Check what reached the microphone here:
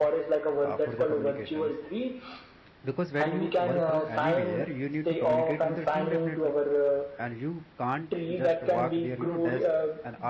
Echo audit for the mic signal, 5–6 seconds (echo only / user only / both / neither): both